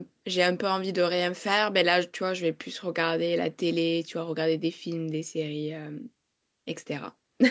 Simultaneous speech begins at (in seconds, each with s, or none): none